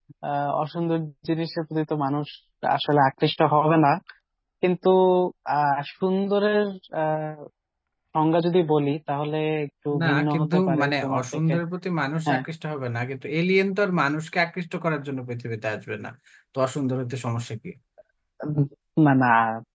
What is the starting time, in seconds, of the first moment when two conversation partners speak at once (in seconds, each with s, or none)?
9.9 s